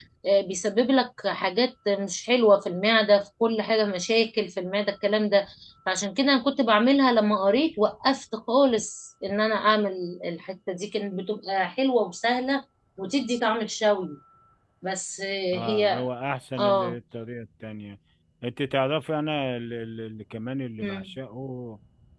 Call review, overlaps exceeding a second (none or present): none